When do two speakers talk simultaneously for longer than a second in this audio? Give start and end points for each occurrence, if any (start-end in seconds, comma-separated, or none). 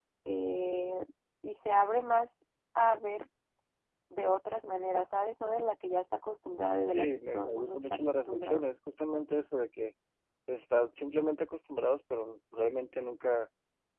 6.9-8.6